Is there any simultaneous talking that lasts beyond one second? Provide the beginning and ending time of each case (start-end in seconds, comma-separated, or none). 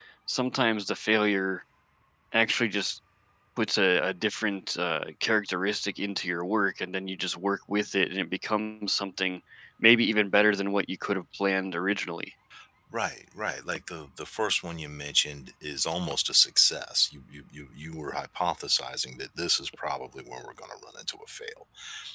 none